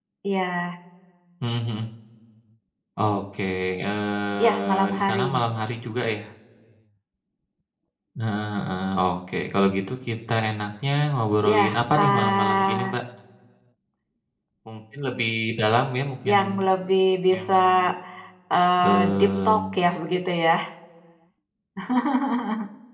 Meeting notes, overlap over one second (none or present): present